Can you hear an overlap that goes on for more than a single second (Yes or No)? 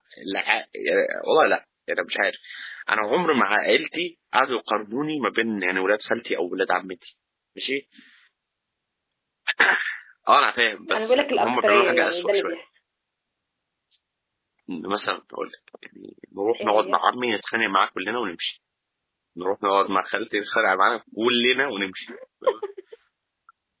Yes